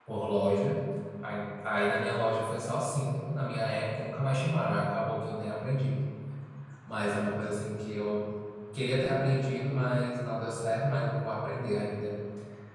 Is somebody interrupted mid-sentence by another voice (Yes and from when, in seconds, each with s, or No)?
No